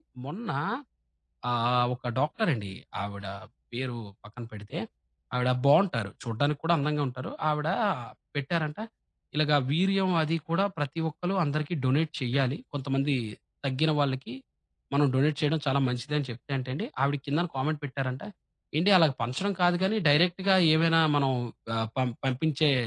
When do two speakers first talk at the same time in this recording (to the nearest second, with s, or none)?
none